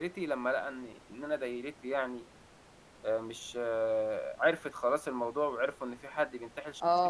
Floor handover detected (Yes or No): Yes